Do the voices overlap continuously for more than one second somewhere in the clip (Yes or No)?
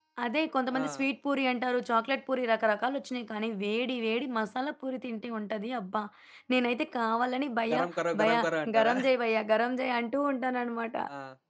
No